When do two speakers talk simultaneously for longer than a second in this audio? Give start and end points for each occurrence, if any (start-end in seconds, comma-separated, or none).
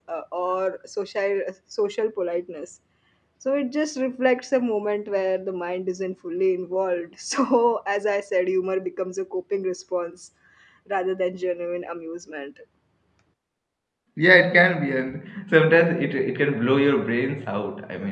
none